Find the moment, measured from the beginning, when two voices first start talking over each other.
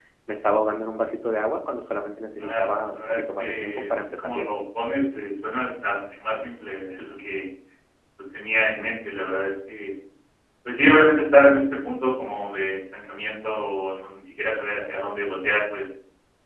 2 s

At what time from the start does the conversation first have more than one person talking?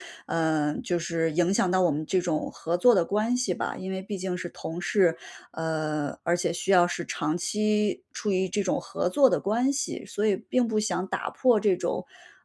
none

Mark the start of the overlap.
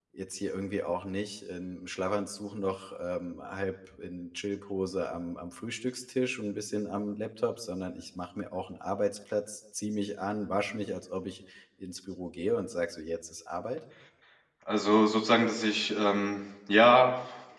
none

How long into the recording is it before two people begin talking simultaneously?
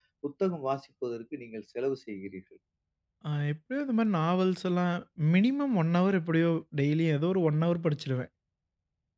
none

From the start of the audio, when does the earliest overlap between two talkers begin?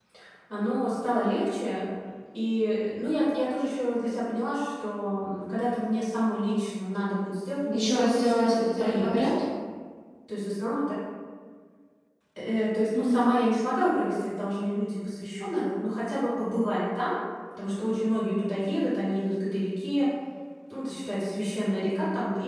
8 s

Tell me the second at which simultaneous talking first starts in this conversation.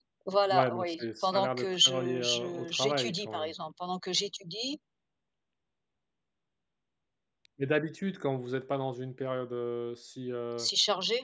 1 s

